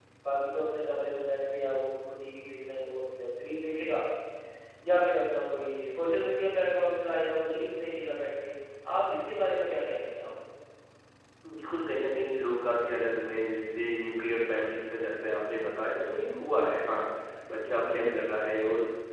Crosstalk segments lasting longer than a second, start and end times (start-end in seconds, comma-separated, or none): none